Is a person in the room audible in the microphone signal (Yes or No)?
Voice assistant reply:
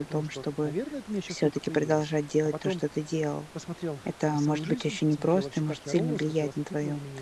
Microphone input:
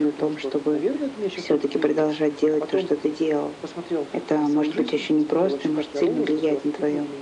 No